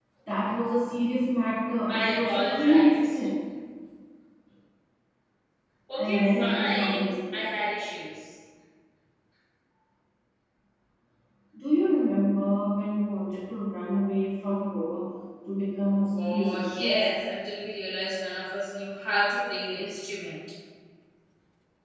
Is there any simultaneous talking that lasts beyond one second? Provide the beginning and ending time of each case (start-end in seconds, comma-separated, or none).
1.9-3.2, 6.0-7.4, 15.9-17.1